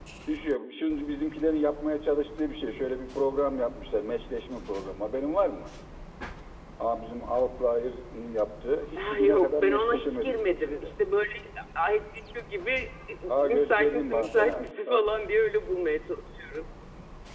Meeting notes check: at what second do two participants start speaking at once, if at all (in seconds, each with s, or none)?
9.0 s